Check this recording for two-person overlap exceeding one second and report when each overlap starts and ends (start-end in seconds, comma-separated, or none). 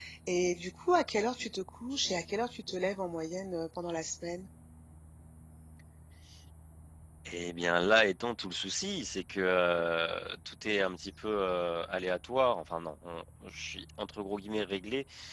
none